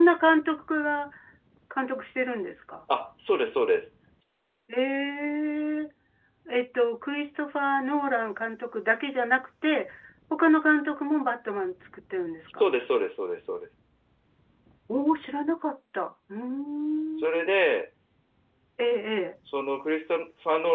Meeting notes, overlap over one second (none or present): none